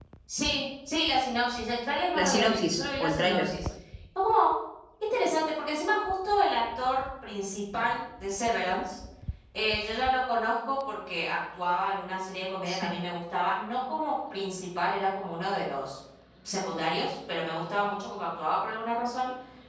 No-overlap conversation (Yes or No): No